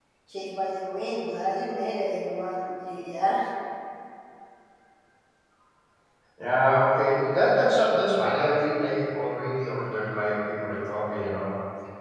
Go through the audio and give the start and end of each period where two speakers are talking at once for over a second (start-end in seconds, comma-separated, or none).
none